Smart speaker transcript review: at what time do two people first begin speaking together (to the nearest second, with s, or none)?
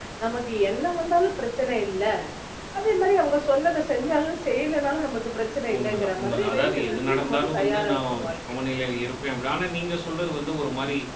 6 s